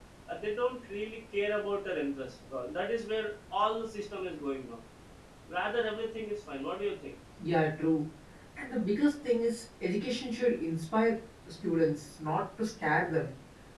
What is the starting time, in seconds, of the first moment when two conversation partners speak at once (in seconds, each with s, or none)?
none